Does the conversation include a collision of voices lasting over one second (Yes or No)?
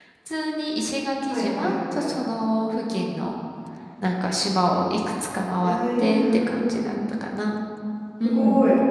Yes